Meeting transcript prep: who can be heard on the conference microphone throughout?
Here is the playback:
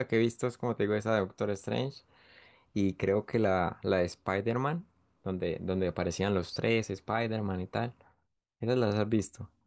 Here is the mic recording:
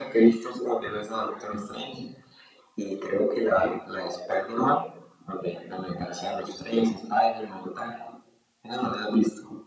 echo only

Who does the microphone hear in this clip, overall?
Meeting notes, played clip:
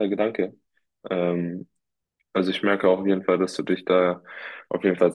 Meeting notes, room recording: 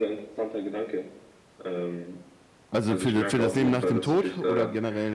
both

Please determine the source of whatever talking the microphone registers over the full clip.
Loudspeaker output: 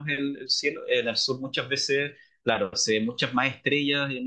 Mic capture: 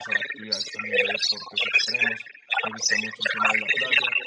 both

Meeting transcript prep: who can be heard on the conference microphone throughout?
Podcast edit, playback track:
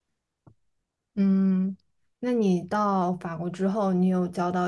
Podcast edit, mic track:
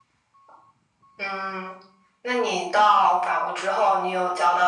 echo only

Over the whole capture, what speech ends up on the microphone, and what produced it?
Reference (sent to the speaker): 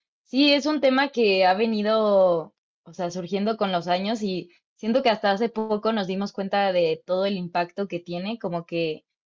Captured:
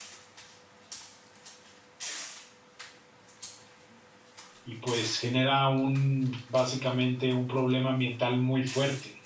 user only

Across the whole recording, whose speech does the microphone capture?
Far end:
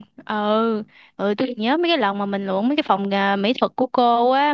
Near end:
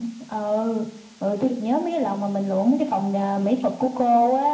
echo only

